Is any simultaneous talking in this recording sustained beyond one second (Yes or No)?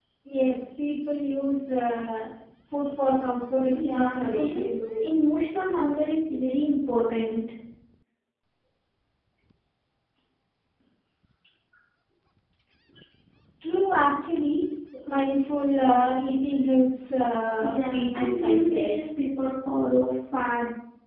Yes